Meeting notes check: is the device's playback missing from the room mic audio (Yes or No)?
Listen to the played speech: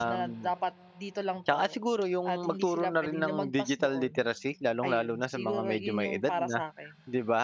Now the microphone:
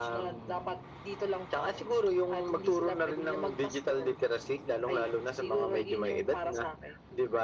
No